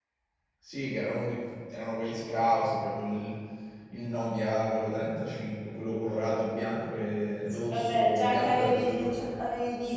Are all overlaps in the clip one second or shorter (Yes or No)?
No